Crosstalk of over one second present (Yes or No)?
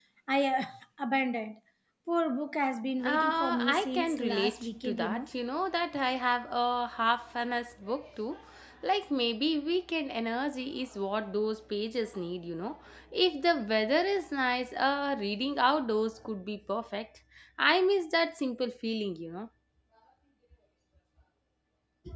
Yes